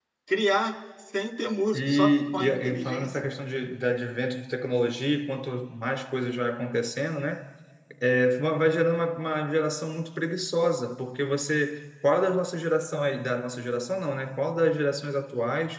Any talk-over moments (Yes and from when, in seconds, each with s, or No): Yes, from 1.7 s